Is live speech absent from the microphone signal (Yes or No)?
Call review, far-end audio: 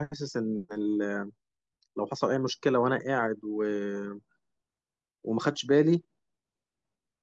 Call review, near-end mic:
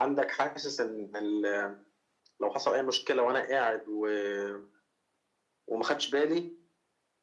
Yes